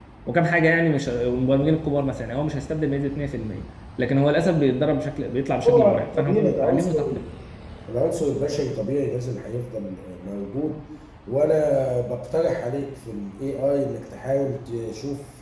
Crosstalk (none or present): present